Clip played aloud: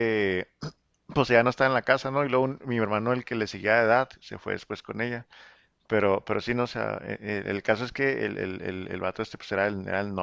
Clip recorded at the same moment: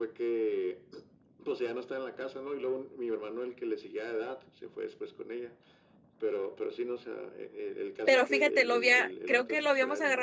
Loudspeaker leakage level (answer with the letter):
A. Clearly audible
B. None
A